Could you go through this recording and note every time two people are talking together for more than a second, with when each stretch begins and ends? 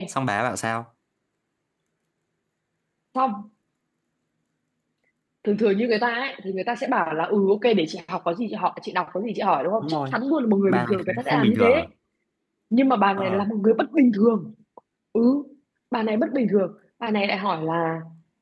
10.7-11.9

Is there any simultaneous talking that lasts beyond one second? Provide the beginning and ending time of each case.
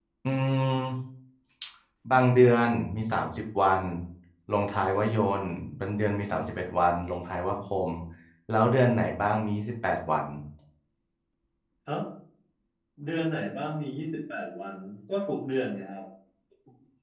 none

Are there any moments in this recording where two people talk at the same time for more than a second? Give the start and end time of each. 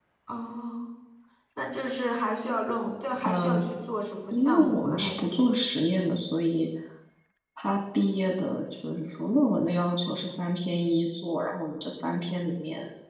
4.3-5.6

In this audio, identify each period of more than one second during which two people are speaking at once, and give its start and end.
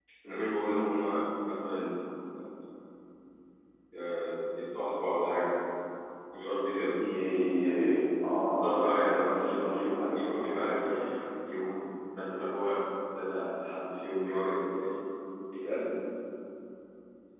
none

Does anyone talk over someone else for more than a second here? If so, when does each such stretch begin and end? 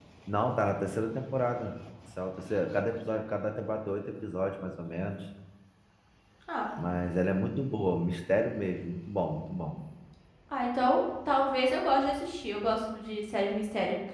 none

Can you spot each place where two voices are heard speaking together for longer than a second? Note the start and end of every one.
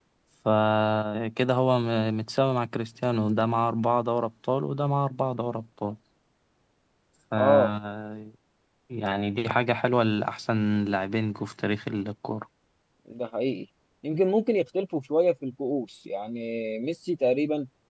none

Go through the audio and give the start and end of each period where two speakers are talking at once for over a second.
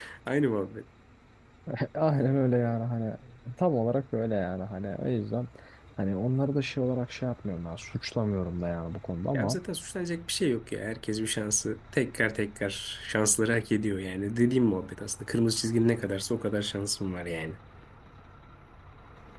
none

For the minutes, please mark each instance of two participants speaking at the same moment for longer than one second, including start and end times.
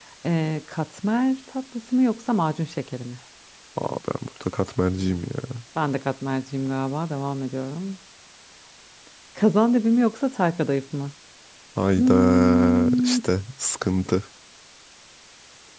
12.0-13.2

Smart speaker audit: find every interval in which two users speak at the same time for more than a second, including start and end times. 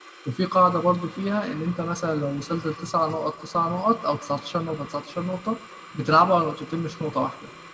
none

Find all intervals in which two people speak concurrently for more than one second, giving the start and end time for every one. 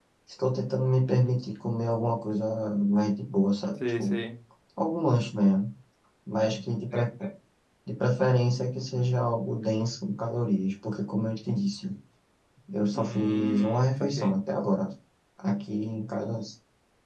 12.9-14.4

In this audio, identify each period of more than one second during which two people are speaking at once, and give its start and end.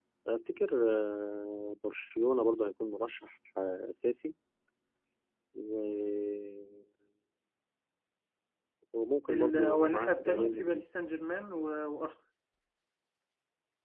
9.3-10.8

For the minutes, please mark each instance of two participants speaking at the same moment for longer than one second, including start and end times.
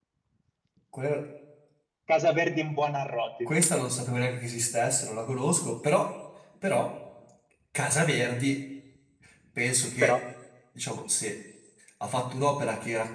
none

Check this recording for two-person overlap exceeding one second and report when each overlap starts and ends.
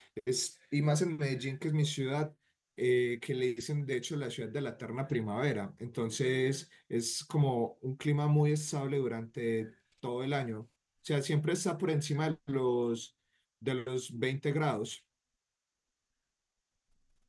none

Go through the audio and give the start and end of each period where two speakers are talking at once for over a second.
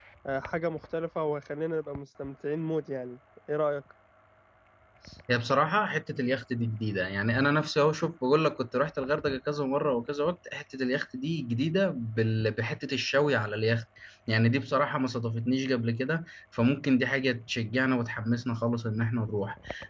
none

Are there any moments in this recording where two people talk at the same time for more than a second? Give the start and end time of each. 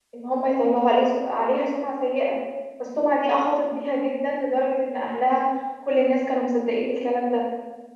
none

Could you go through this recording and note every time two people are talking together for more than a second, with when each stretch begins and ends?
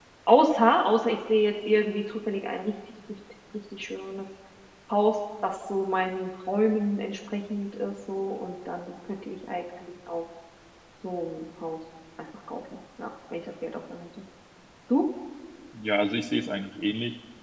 none

